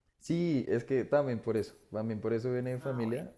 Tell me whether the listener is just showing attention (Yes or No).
Yes